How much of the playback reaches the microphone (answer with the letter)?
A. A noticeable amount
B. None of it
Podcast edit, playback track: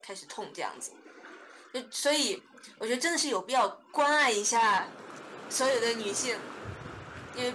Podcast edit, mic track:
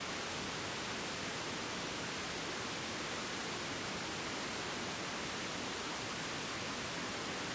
B